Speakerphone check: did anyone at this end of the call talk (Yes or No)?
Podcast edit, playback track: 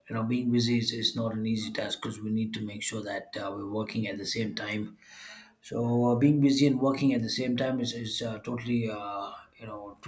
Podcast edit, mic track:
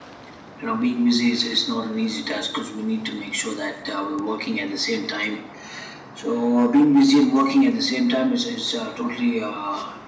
No